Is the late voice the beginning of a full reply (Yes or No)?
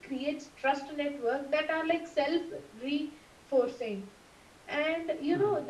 No